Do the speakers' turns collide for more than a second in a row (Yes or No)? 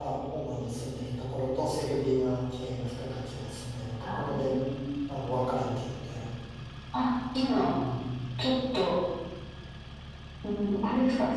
No